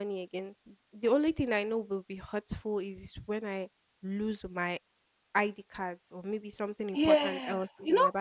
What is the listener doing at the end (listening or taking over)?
taking over